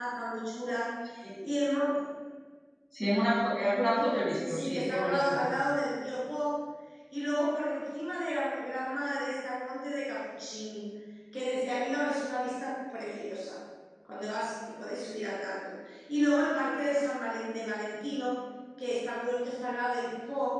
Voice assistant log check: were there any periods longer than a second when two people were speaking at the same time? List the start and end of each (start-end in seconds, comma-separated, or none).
3.9-5.4